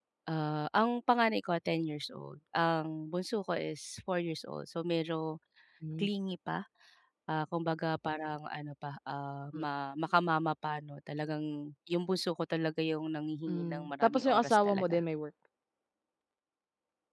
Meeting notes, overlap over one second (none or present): present